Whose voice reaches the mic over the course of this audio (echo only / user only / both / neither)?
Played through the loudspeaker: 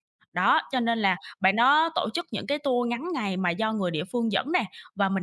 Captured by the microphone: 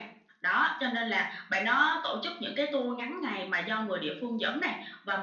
echo only